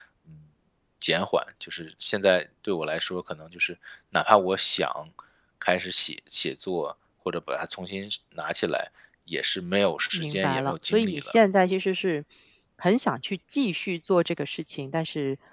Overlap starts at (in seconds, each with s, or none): 10.1 s